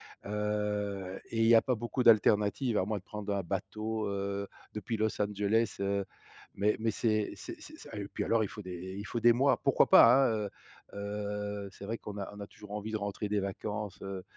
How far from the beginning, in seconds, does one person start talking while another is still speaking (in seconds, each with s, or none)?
none